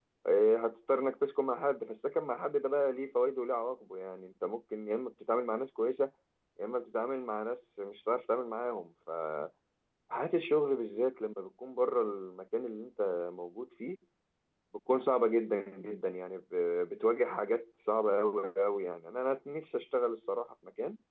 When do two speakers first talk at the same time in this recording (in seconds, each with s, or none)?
none